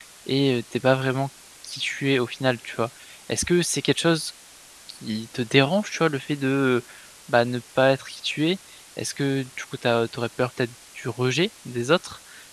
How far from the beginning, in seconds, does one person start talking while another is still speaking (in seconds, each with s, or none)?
none